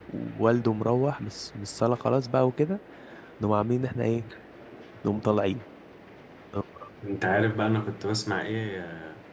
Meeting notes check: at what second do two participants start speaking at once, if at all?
none

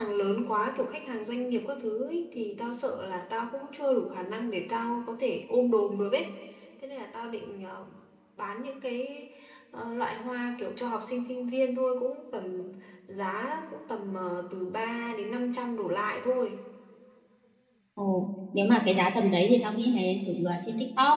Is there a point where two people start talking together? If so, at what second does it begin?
none

